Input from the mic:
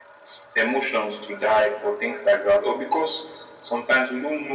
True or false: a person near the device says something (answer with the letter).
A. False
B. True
A